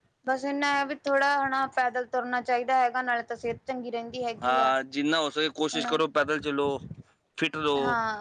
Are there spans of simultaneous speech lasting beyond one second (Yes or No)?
No